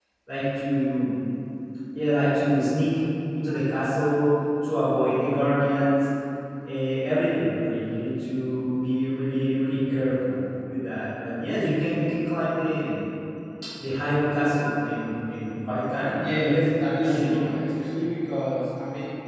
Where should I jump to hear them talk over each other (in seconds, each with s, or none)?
16.1 s